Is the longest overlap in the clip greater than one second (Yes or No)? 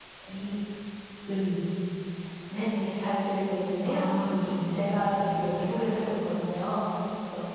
No